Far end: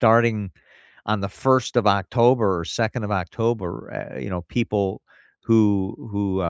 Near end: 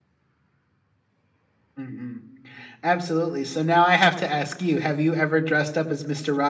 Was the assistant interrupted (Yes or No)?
Yes